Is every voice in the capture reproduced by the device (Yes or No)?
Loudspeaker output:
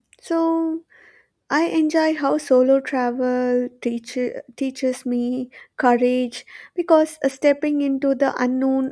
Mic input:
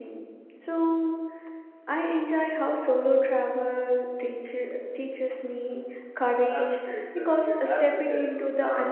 No